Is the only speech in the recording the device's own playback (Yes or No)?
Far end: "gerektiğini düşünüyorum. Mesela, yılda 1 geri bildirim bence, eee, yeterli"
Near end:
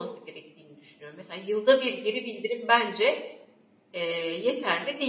Yes